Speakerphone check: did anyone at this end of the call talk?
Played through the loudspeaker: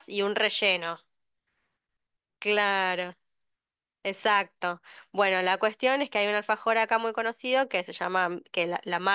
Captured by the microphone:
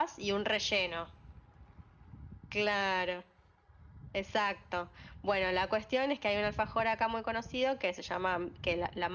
No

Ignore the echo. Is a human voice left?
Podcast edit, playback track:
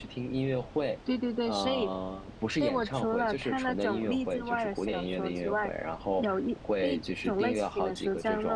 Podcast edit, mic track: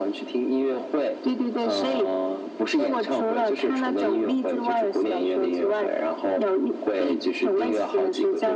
No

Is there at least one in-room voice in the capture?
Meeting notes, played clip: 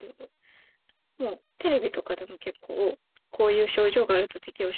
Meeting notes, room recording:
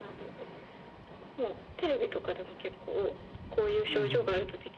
Yes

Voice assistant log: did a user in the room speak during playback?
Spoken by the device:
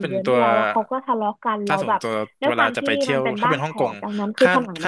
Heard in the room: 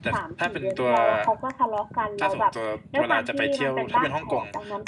No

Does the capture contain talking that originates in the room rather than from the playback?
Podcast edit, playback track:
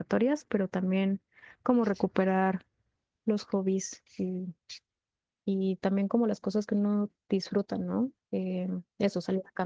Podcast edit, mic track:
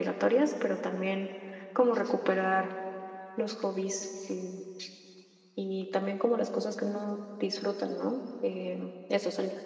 No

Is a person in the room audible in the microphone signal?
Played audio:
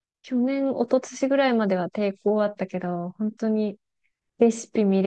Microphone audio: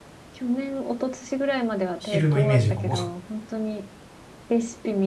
Yes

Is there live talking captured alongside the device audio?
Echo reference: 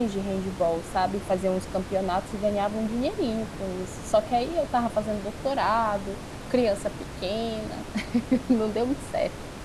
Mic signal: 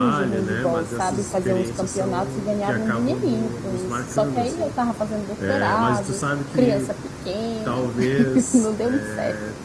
Yes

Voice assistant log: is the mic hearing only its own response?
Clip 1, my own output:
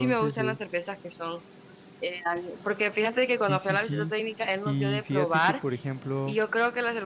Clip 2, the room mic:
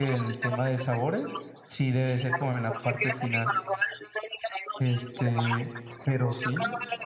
No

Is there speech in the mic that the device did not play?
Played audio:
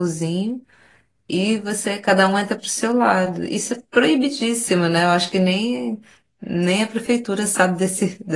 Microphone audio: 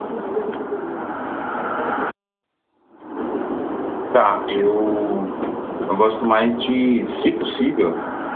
Yes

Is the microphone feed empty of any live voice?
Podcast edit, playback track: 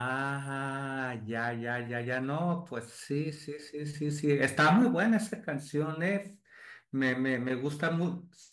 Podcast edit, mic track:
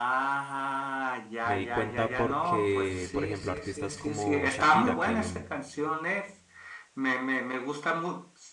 No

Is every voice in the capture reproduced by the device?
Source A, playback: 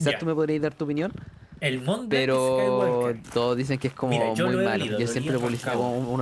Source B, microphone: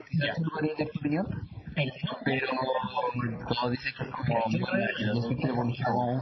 Yes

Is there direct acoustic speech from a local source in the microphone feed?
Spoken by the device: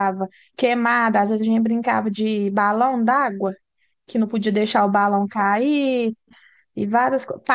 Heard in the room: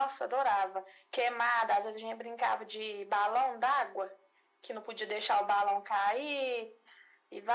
No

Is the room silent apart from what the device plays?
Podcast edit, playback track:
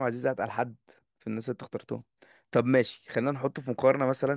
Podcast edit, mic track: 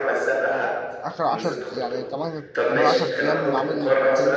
No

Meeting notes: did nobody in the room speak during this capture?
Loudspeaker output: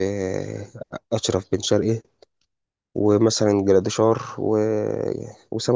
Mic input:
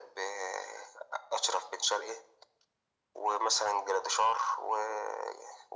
Yes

